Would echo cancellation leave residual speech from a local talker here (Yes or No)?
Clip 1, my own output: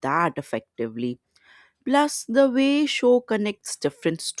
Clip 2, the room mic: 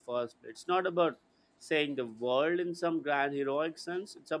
Yes